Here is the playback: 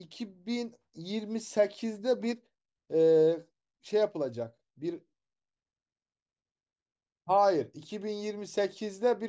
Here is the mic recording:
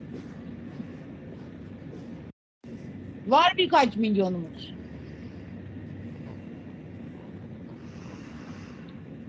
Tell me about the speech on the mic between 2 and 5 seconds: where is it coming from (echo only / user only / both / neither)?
user only